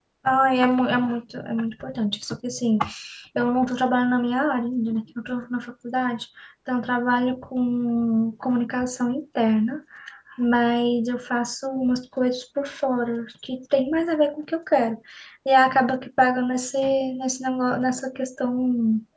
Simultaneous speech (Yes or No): No